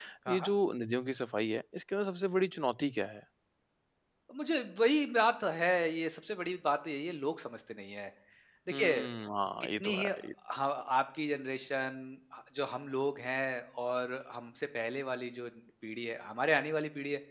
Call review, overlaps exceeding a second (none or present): none